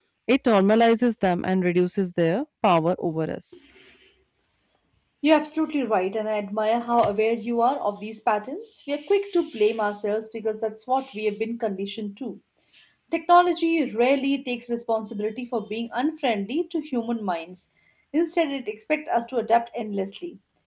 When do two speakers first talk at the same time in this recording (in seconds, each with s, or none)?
none